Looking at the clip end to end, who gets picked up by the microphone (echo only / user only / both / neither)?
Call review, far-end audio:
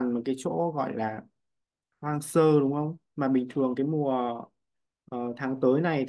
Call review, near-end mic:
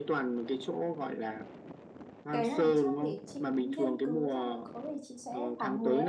both